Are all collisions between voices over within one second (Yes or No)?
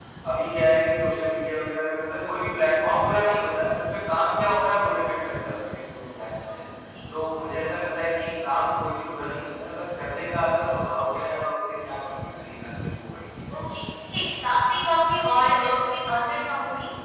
Yes